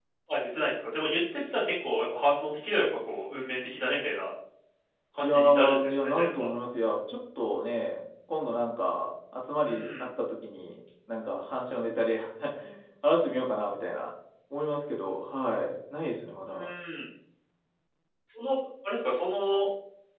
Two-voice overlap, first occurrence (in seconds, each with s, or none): 5.2 s